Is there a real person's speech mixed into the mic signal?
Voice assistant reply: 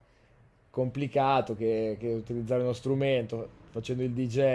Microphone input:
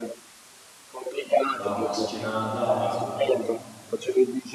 Yes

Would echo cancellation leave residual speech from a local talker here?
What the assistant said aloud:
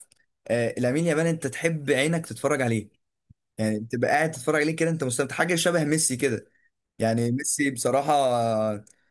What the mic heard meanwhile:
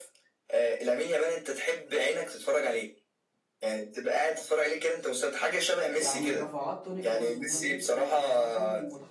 Yes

